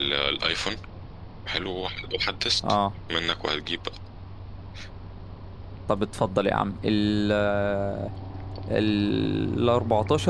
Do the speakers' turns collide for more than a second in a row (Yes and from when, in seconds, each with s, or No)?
No